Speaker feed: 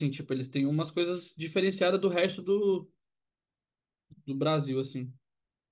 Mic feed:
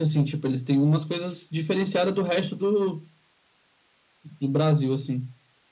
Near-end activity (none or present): none